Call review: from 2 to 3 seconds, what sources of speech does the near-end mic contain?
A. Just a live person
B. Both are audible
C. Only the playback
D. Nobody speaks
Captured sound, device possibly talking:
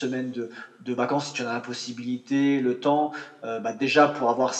C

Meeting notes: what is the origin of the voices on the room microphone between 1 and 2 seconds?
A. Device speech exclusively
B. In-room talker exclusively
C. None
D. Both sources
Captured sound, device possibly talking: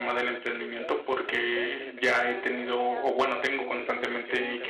D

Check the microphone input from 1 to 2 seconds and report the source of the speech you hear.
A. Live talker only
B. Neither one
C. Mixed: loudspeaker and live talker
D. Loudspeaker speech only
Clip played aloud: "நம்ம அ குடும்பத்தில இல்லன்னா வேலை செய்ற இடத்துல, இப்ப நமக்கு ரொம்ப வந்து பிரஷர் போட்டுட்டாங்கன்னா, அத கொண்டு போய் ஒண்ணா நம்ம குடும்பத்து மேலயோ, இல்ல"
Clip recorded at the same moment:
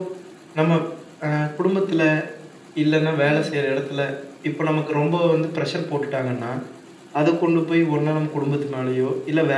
D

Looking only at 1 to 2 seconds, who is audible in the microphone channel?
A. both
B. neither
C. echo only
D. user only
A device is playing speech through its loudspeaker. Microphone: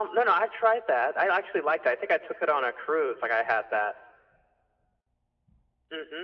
C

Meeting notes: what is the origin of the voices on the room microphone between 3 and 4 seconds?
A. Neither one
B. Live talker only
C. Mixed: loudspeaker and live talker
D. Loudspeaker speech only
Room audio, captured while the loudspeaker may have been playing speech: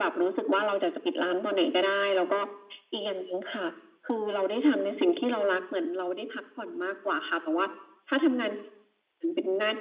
D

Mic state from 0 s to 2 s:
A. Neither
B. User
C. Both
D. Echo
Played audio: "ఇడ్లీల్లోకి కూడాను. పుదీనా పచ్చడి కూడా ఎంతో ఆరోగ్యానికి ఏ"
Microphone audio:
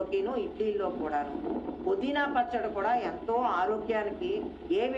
D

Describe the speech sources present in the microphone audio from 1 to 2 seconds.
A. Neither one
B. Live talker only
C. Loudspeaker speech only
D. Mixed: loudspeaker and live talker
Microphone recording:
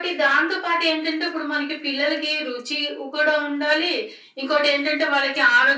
C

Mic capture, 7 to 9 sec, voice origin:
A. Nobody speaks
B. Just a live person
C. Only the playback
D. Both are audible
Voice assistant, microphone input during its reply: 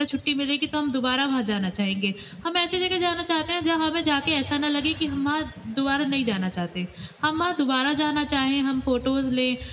B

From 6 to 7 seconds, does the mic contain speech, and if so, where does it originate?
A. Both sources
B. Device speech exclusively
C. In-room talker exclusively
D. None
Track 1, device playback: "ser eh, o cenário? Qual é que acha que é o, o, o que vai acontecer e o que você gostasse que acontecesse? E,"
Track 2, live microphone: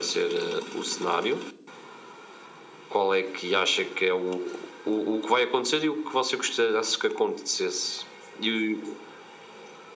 B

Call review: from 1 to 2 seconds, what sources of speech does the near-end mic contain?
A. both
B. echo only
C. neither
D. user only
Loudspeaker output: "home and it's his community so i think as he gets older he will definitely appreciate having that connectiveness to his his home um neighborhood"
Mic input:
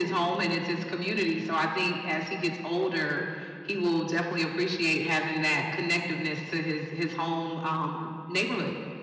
B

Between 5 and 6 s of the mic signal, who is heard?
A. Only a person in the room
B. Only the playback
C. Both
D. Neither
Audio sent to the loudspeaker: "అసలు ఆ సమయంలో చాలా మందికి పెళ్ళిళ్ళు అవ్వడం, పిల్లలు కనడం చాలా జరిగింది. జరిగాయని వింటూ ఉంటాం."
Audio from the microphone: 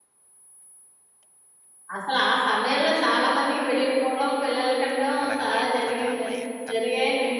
C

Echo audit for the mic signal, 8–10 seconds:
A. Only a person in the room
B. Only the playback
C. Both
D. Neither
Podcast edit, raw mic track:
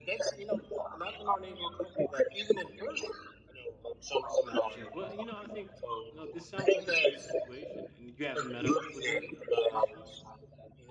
C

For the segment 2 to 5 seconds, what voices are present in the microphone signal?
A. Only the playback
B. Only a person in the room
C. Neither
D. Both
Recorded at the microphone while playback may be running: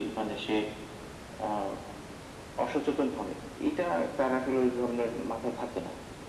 A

